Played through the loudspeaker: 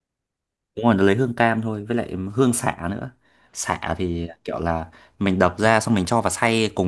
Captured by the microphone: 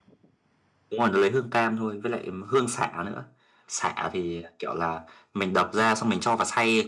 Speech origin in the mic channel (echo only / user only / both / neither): echo only